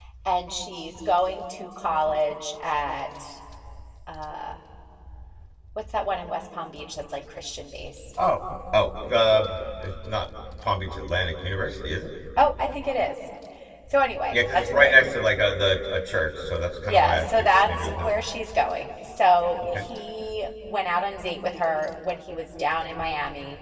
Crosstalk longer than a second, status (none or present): present